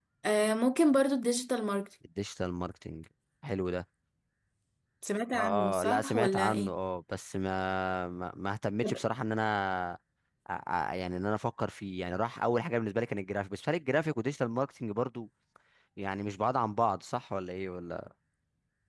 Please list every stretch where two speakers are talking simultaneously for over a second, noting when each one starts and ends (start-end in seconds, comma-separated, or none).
5.3-6.7